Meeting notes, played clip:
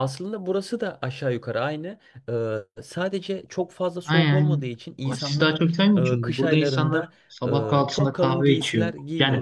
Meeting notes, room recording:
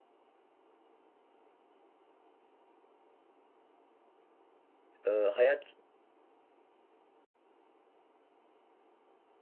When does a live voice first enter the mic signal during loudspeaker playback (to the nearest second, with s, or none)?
5 s